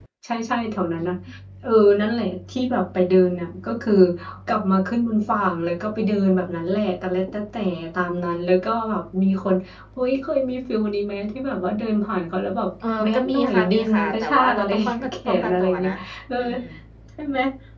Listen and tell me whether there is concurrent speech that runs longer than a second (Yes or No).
Yes